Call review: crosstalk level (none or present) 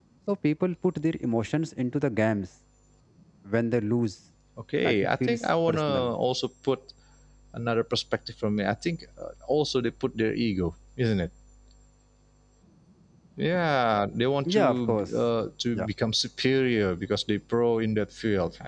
present